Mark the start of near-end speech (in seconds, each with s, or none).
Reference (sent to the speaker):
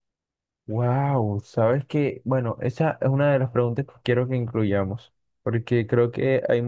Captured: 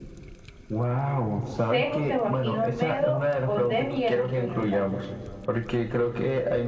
1.7 s